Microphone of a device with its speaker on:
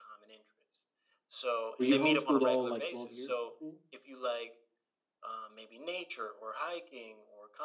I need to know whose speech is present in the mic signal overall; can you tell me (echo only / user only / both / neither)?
both